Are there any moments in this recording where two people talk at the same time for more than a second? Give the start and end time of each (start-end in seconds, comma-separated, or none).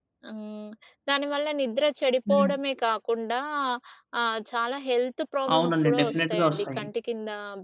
5.5-6.9